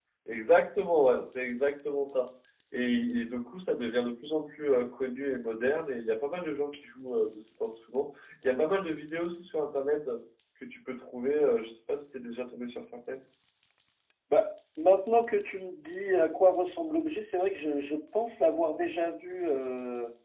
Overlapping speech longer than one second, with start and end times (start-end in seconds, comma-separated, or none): none